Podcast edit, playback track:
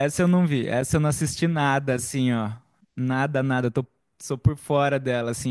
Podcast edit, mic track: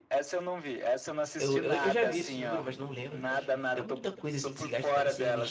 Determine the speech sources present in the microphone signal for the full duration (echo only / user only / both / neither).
both